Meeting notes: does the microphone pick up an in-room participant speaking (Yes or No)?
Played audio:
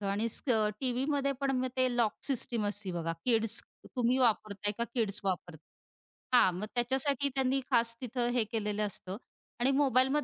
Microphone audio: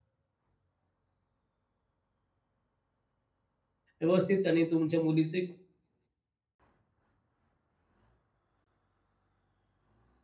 Yes